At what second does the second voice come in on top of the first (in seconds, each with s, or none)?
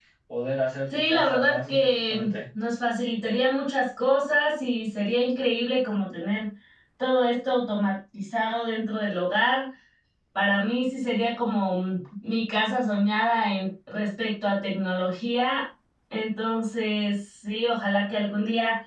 0.9 s